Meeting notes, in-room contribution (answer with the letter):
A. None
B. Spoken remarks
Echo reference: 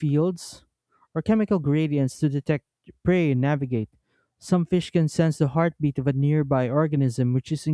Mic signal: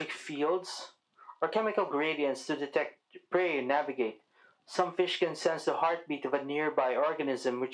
A